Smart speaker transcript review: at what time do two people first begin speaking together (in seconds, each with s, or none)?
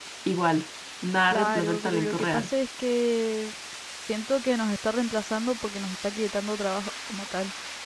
1.3 s